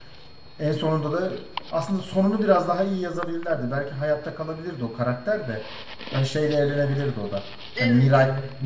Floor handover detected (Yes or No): No